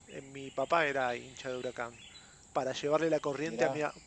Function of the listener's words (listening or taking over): listening